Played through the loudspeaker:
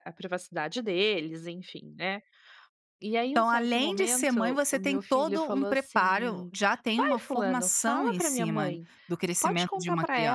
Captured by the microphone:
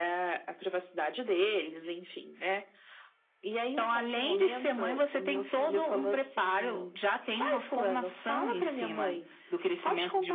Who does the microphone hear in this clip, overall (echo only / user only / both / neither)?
echo only